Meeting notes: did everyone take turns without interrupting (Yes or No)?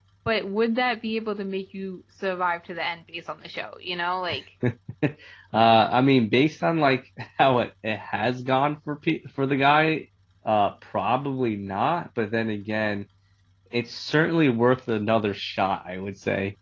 Yes